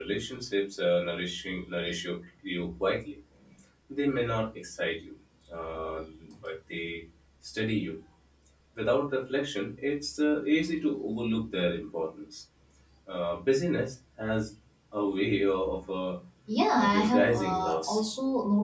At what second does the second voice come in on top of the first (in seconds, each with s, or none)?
16.8 s